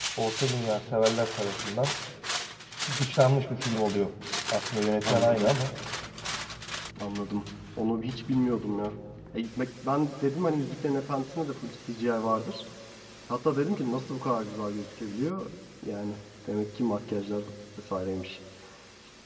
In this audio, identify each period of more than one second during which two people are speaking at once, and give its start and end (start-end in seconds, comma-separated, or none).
none